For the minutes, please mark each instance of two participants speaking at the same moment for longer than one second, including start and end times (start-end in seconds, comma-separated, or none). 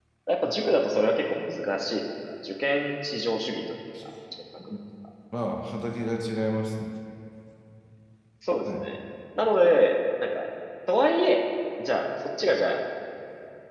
none